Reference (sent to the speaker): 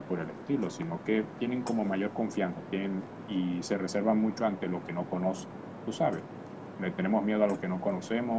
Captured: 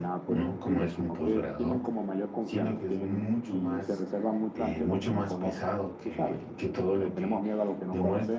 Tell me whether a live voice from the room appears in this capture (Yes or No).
Yes